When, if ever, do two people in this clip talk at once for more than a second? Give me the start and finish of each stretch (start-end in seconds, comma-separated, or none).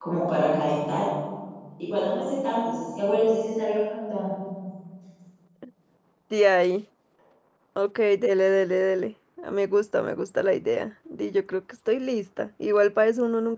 none